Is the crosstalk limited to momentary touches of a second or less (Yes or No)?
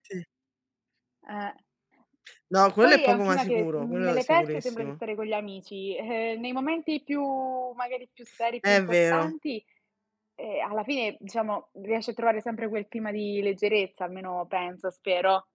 No